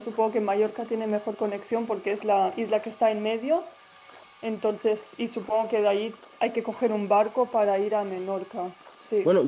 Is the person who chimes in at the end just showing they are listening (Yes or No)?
No